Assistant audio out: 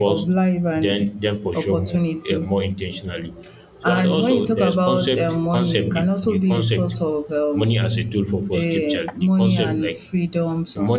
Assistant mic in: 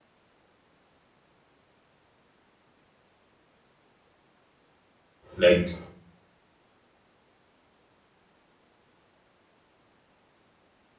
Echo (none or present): none